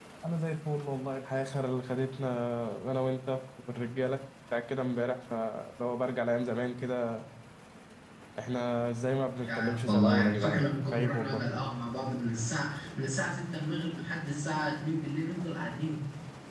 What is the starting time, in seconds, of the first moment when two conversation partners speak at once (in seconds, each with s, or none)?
9.4 s